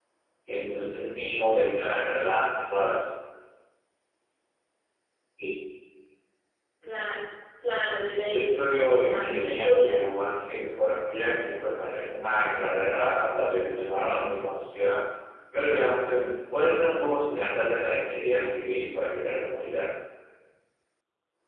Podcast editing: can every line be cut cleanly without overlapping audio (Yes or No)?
No